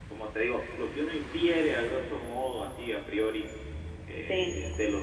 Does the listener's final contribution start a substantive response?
No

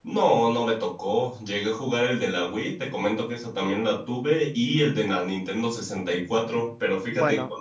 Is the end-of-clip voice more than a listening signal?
No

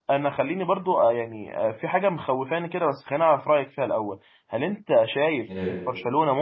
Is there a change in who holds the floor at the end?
No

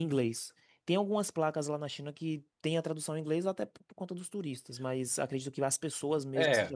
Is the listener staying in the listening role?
No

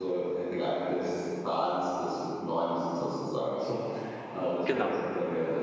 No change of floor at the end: Yes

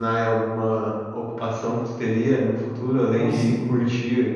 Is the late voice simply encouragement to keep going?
Yes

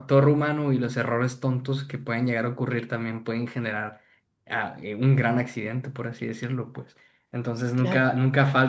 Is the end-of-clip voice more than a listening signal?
No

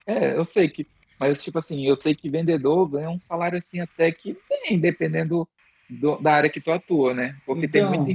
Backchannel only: Yes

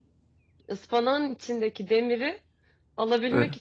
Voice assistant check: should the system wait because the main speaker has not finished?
Yes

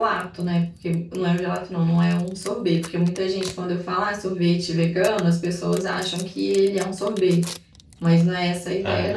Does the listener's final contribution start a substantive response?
Yes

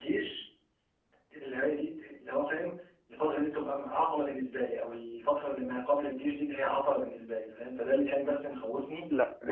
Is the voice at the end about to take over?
Yes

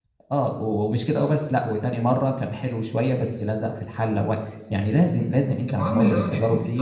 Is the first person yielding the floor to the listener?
Yes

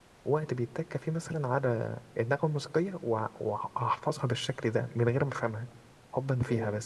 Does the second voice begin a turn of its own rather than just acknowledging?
Yes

